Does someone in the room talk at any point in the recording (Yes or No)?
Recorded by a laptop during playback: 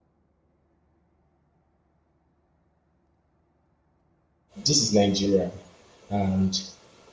Yes